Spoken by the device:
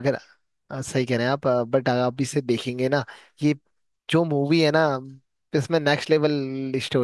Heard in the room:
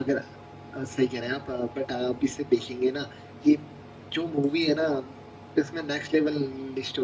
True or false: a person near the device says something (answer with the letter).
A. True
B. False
B